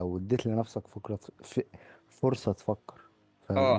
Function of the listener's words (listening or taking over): taking over